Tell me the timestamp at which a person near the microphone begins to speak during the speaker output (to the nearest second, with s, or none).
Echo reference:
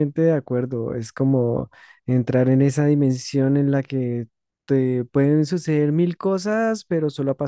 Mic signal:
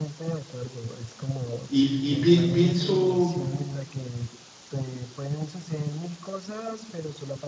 2 s